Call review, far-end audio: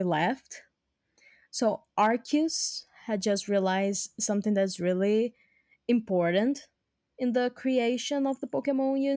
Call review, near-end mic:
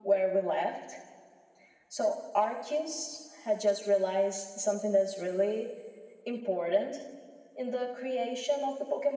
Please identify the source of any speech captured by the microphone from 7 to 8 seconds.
echo only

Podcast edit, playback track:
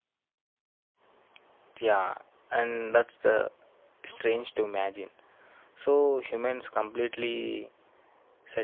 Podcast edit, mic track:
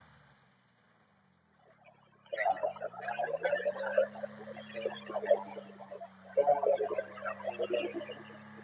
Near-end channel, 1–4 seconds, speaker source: echo only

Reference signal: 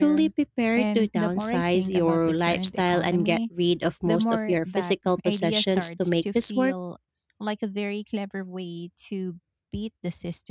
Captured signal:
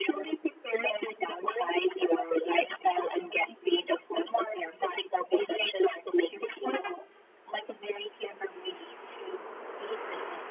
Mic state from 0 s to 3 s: echo only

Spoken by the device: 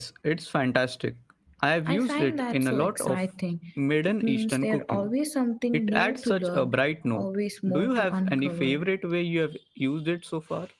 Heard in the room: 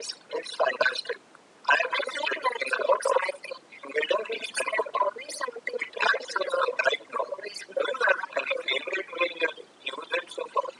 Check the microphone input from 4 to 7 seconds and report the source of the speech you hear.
echo only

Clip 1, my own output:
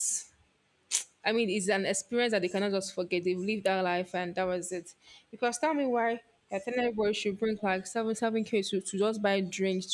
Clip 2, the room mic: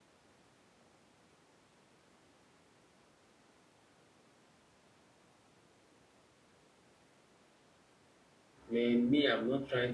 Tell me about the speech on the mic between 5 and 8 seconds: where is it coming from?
neither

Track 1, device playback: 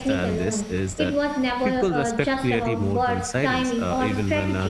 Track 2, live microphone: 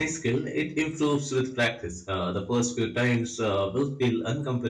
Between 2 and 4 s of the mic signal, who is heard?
user only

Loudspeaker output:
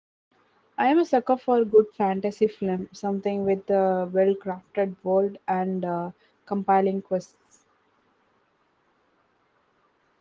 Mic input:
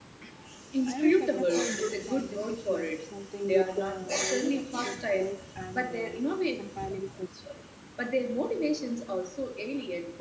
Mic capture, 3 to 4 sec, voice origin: both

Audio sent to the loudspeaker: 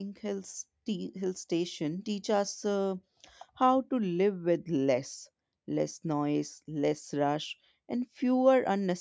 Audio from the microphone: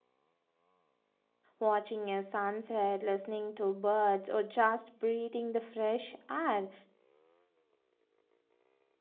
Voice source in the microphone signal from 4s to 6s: user only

